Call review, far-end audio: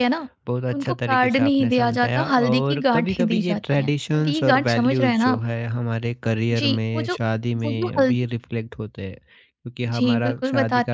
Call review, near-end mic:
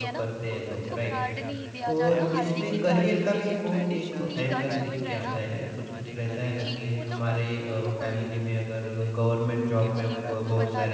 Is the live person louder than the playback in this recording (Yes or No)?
Yes